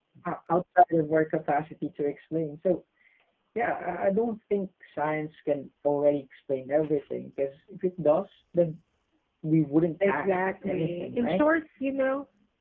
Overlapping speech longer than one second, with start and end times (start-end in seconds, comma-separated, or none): 10.0-11.4